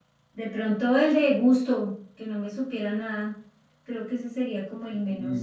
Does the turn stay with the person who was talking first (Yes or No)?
No